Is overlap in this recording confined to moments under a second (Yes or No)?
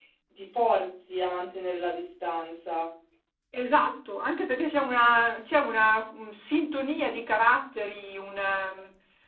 Yes